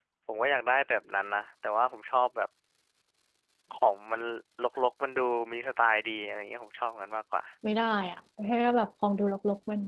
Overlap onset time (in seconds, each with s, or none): none